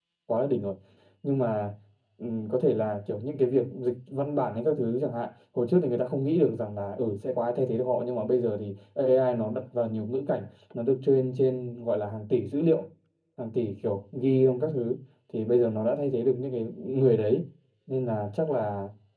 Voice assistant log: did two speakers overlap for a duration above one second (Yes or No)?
No